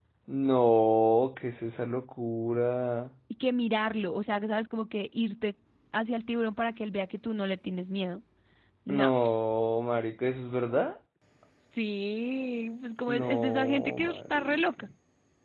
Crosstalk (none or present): present